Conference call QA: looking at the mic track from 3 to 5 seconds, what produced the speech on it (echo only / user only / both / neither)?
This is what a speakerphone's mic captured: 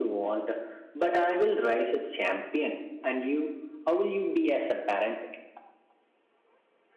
echo only